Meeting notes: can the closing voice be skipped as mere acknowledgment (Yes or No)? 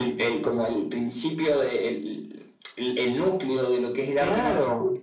No